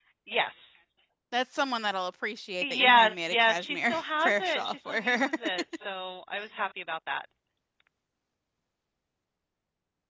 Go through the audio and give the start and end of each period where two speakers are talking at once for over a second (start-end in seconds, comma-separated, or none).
2.6-5.3